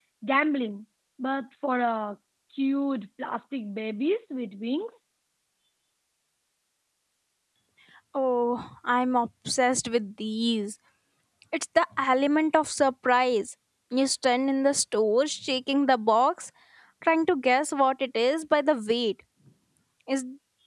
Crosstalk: none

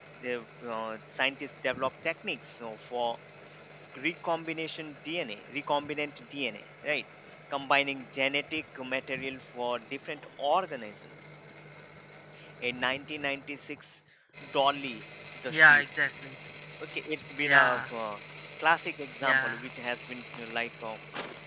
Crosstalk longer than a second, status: none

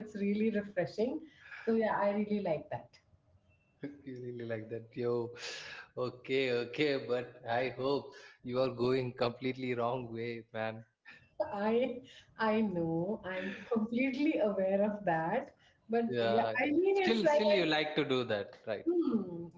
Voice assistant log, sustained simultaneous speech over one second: present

